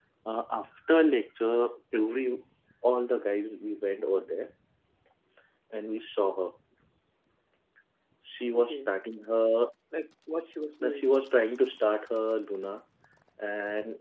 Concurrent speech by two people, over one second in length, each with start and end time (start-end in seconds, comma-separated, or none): none